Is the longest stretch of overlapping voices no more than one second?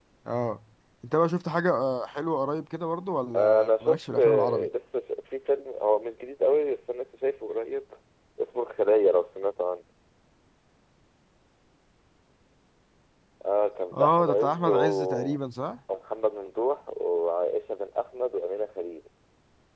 No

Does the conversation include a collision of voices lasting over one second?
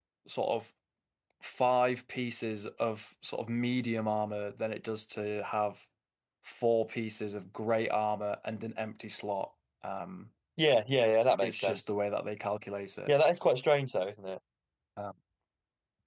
No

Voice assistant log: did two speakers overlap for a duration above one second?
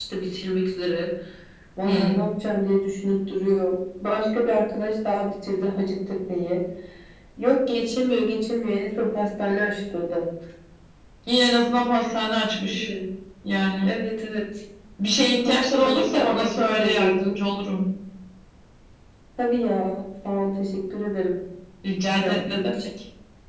Yes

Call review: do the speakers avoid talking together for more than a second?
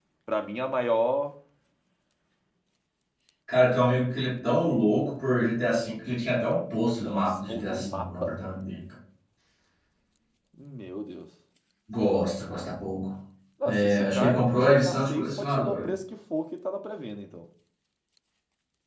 No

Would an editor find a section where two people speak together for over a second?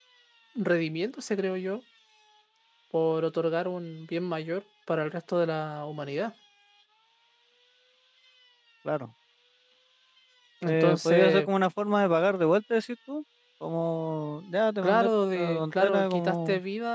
Yes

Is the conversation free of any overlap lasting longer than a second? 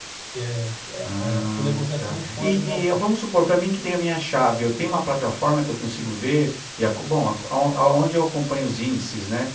No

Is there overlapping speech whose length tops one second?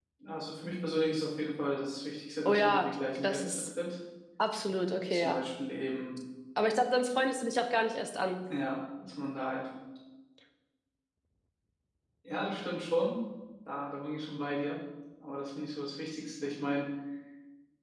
Yes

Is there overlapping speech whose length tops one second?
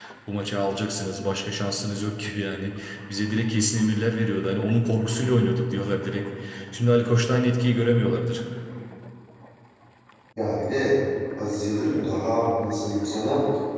No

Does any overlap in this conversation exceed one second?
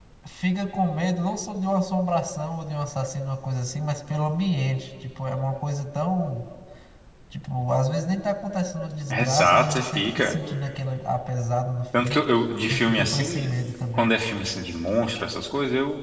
Yes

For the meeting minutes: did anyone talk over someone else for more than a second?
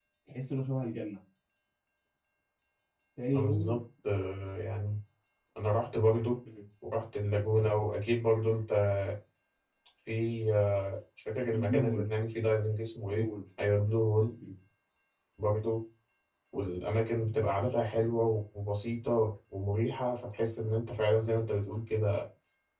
No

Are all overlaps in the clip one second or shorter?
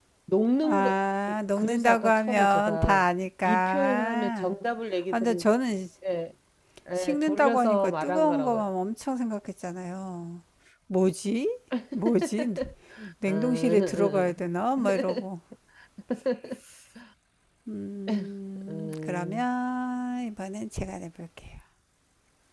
No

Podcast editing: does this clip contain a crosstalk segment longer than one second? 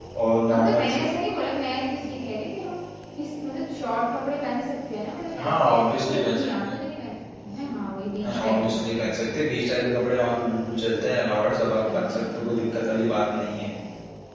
Yes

